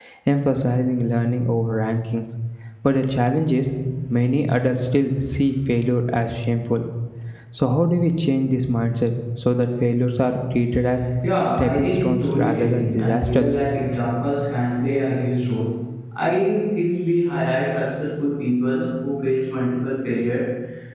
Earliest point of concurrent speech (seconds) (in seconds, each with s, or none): 11.6 s